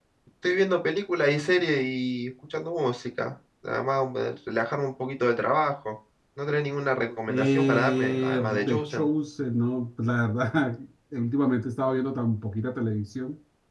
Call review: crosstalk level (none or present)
present